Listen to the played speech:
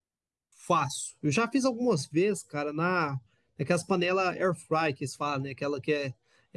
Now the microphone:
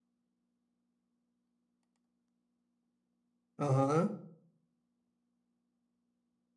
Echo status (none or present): none